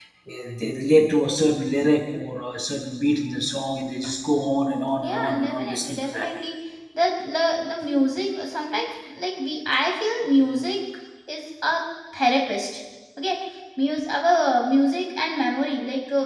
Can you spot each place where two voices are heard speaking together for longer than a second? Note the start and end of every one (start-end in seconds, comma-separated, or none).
5.0-6.3